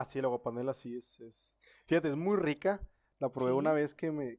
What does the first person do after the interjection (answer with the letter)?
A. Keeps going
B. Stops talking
A